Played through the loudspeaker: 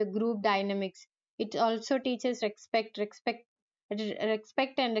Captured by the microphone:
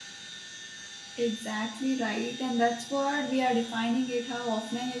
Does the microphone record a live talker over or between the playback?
Yes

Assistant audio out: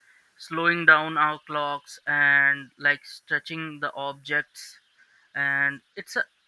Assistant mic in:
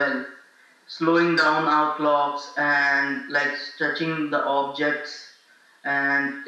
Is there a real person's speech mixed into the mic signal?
No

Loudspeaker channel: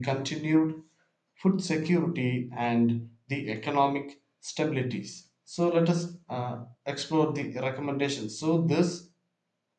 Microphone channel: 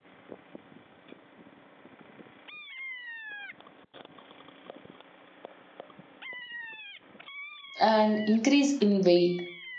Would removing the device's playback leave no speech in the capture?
No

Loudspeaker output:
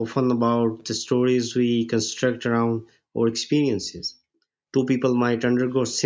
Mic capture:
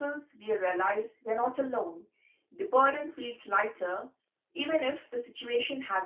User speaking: Yes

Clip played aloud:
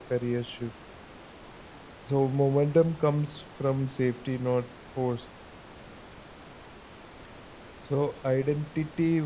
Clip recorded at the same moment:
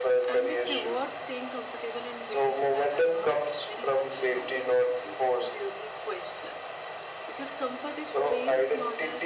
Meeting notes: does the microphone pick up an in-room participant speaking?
Yes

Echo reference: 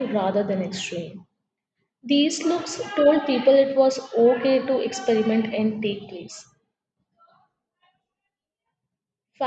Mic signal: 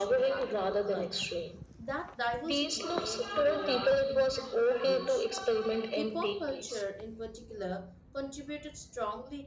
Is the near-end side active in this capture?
Yes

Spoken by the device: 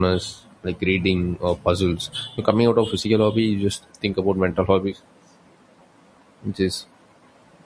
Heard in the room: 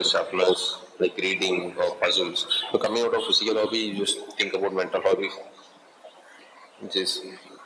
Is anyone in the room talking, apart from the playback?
No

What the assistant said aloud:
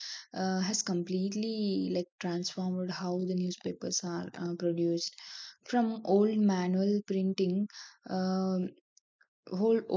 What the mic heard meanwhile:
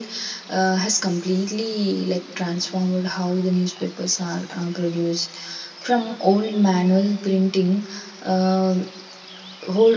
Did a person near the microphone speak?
No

